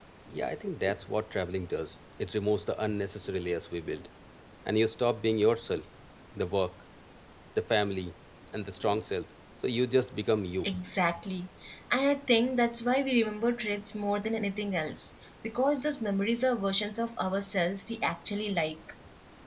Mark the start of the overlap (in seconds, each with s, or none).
none